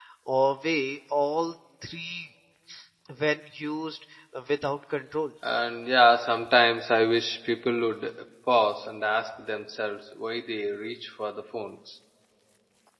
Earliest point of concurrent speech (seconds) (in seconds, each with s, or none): none